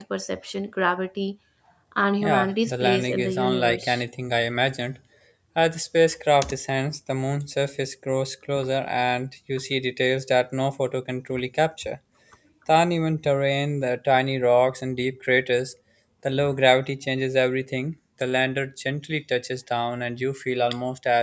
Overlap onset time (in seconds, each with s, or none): 2.2 s